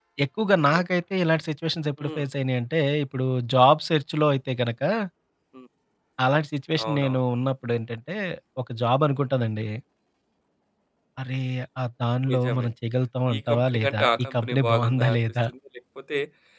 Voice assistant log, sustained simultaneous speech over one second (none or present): present